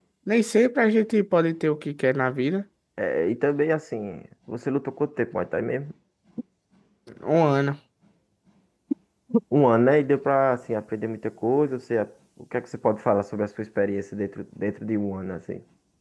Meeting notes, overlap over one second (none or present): none